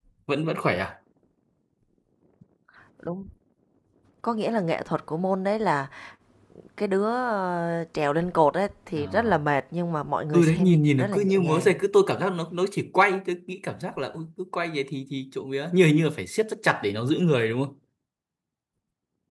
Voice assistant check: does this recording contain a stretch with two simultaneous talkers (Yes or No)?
Yes